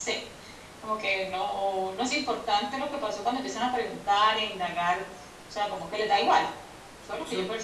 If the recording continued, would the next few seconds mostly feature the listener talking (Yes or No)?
Yes